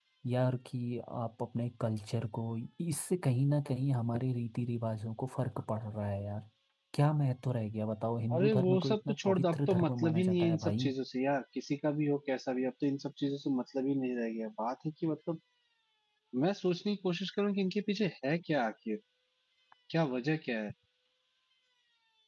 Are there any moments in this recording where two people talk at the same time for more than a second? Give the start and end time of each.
8.3-10.9

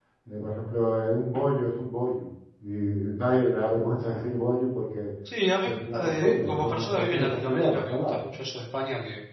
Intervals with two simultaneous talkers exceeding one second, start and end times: 5.8-8.1

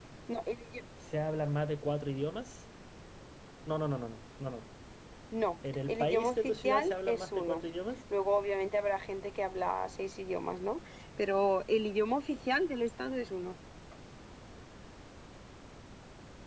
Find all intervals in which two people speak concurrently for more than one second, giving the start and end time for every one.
5.9-7.6

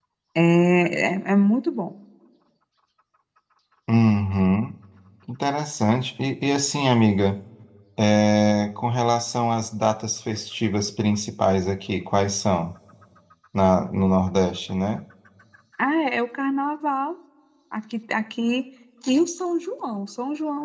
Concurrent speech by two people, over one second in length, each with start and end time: none

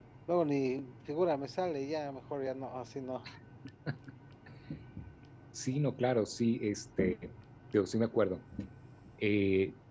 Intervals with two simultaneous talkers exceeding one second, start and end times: none

